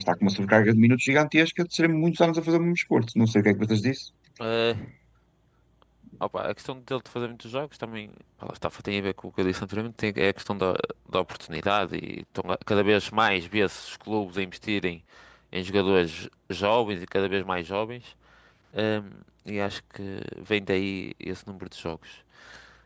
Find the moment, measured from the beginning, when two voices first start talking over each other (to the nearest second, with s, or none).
none